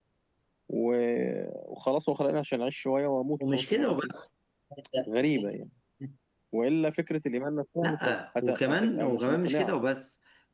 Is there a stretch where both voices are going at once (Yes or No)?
Yes